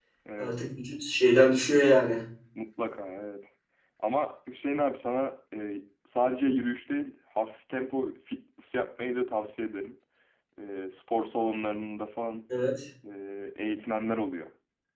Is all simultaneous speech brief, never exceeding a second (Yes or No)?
Yes